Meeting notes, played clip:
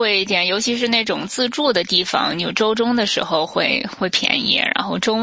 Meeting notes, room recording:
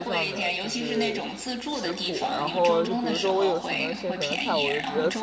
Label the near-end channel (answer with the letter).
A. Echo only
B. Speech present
B